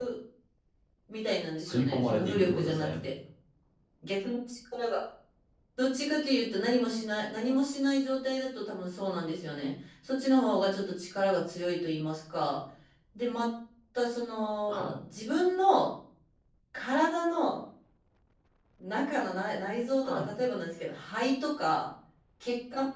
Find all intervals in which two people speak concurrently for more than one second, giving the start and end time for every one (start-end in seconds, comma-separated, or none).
1.6-2.9